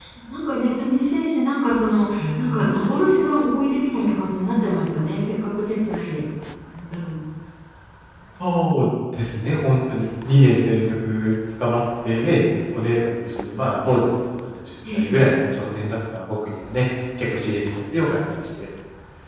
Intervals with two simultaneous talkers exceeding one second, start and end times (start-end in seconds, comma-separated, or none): none